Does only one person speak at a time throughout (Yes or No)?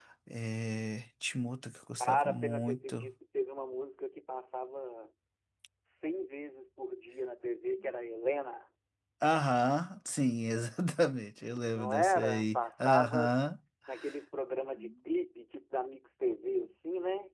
No